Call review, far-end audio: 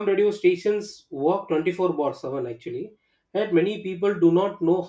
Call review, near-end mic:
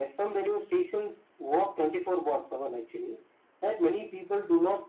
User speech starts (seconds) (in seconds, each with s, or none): none